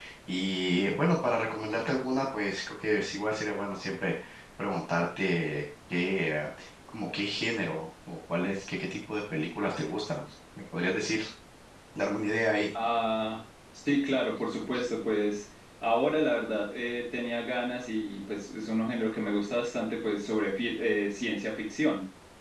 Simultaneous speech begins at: none

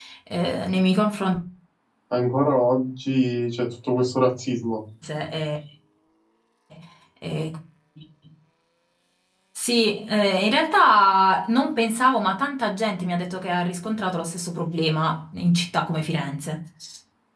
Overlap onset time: none

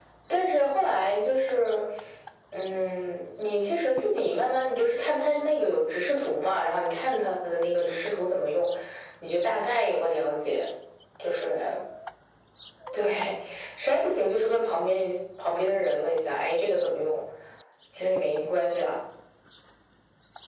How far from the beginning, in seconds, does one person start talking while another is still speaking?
none

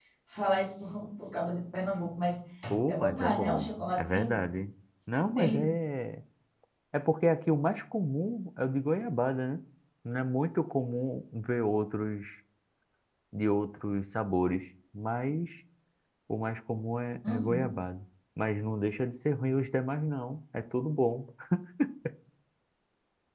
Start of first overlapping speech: 2.9 s

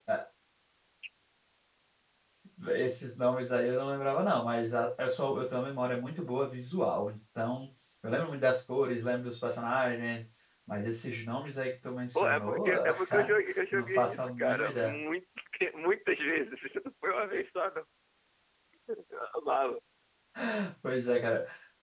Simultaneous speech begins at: 12.2 s

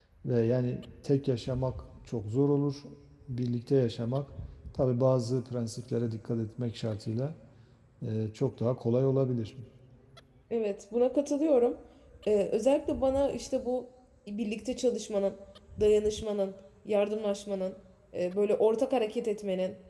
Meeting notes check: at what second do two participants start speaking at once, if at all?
none

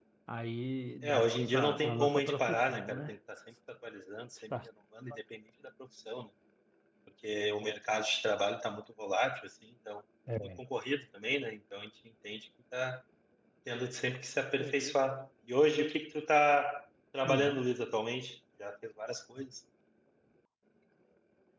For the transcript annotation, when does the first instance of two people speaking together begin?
1.0 s

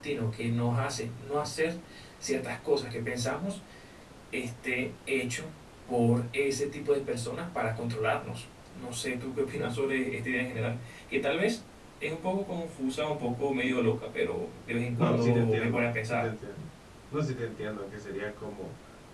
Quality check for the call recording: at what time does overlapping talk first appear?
15.0 s

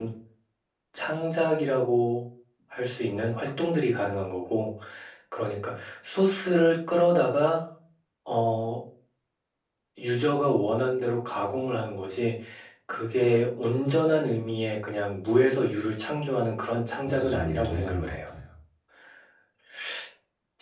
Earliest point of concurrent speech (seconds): 16.9 s

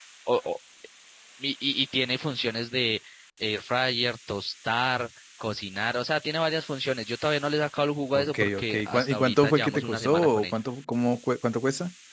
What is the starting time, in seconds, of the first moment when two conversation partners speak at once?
8.1 s

